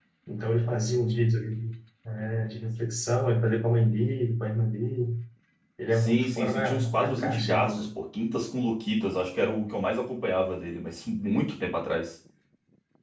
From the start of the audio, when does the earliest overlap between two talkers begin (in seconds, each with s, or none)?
6.0 s